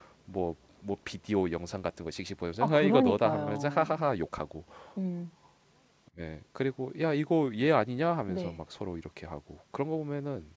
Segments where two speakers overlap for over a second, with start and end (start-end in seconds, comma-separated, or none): 2.6-4.0